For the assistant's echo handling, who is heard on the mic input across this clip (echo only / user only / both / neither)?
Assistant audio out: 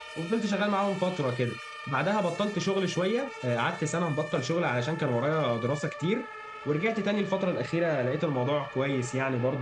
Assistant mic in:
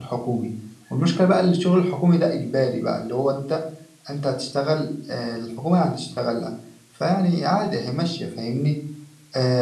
user only